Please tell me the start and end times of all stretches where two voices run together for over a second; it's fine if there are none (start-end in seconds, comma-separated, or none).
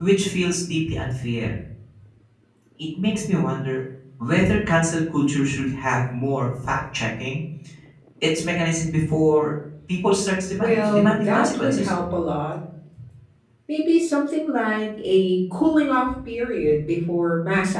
10.6-11.9